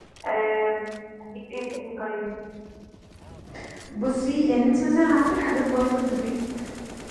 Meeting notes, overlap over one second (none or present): none